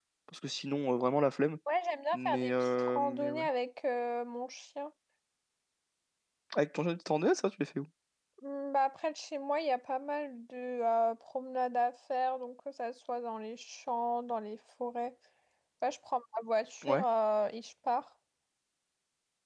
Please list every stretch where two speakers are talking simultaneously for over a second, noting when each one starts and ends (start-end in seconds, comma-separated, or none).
2.1-3.4